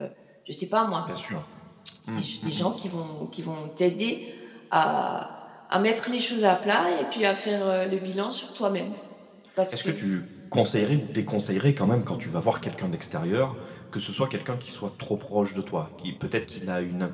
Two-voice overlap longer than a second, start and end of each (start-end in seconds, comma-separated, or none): none